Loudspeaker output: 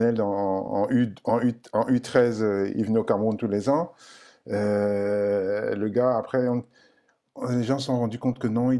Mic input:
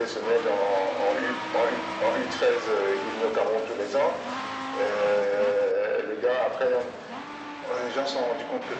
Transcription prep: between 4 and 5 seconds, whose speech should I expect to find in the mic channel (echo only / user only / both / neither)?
echo only